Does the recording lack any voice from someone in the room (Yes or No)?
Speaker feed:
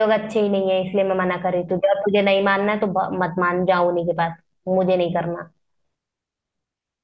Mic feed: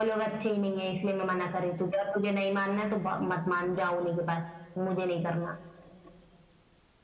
Yes